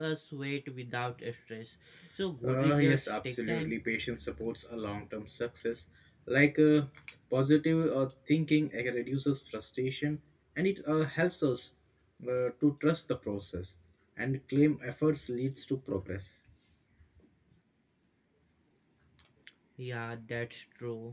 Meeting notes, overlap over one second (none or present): present